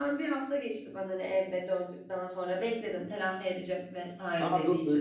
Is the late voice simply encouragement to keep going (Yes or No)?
No